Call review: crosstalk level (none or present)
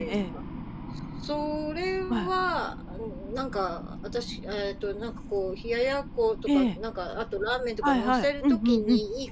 present